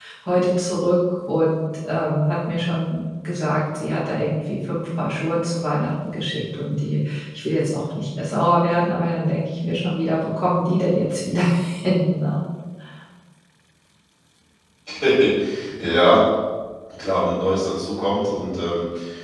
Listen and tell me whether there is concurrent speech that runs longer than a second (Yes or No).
No